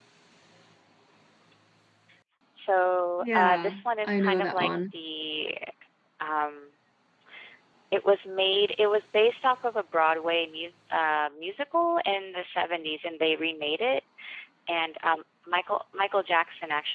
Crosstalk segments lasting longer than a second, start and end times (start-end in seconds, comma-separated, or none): 3.2-4.7